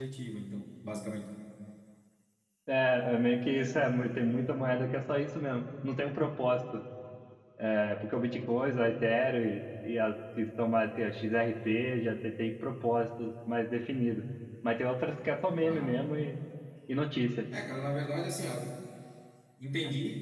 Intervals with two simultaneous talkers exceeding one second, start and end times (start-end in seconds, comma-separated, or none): none